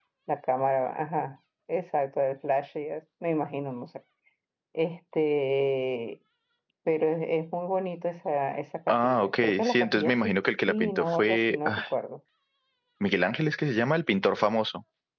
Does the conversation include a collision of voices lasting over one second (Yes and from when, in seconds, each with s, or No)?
Yes, from 8.9 s